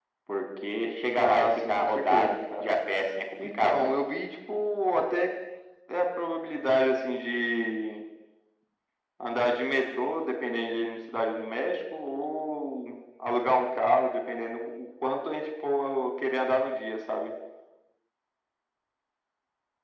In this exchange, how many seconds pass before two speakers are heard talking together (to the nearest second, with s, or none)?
1 s